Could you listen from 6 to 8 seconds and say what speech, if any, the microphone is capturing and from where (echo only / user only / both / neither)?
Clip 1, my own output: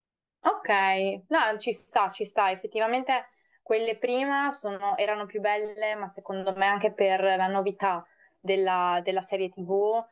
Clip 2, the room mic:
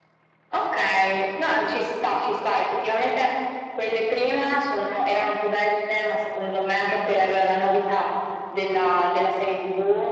echo only